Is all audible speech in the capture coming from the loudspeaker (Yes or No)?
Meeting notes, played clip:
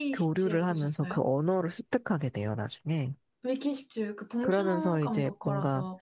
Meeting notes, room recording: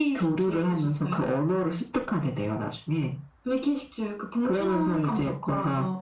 Yes